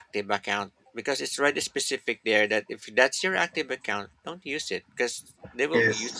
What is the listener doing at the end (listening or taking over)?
listening